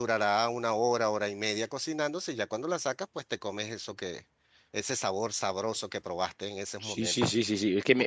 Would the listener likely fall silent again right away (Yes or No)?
No